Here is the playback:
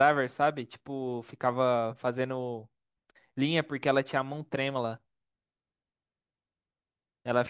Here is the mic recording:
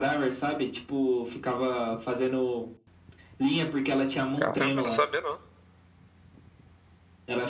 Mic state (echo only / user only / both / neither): both